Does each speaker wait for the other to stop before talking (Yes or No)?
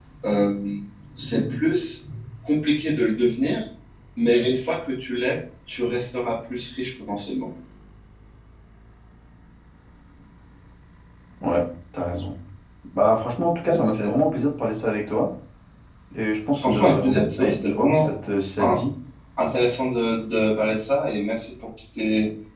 No